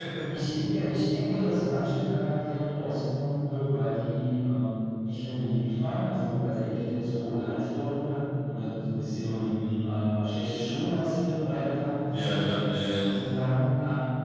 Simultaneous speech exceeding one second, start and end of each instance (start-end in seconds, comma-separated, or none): none